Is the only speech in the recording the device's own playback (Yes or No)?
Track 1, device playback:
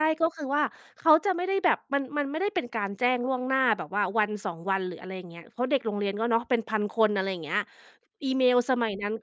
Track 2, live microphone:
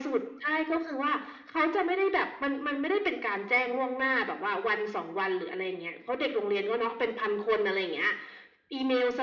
Yes